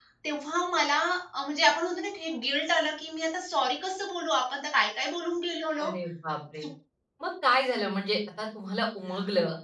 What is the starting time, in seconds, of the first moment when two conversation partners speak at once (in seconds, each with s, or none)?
none